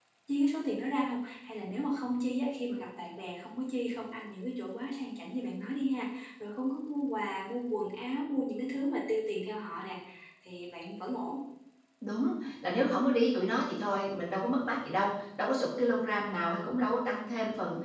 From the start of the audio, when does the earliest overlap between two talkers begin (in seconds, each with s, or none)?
none